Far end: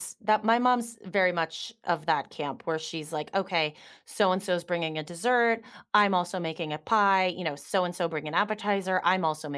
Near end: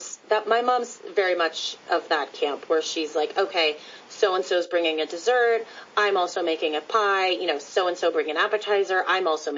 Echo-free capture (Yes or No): No